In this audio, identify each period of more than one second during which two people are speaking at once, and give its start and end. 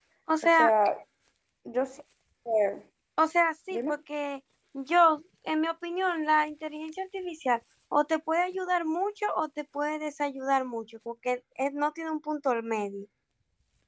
none

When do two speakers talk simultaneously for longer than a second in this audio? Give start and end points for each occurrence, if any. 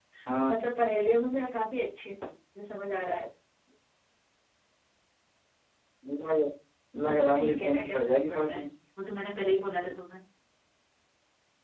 7.0-8.6

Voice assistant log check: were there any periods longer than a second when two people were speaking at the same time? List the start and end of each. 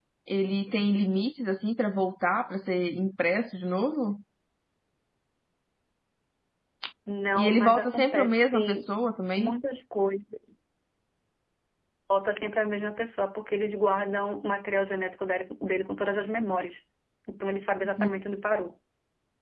7.4-8.8

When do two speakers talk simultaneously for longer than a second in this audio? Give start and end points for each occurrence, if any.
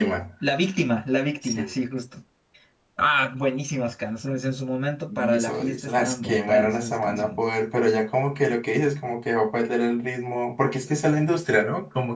5.2-7.4

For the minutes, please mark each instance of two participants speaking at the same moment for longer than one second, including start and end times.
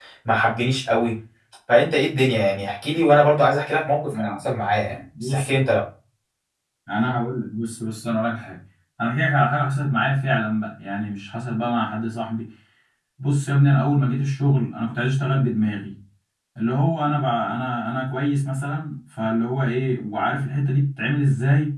none

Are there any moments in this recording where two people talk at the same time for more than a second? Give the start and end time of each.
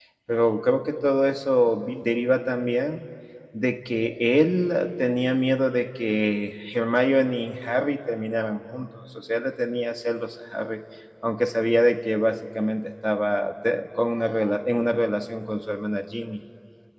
none

